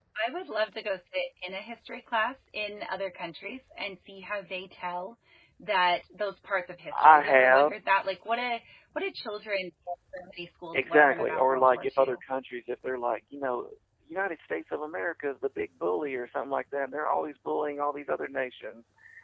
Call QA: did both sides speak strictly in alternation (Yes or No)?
No